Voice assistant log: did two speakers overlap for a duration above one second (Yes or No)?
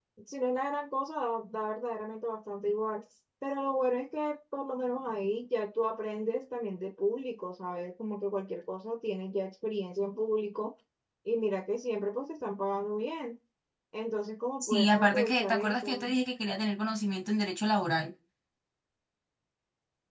Yes